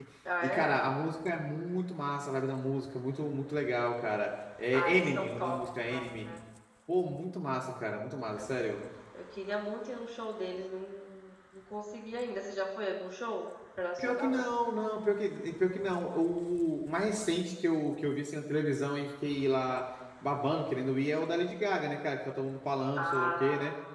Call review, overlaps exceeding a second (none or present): present